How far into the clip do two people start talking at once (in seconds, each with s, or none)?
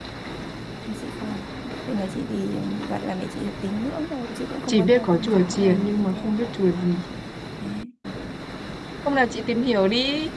4.7 s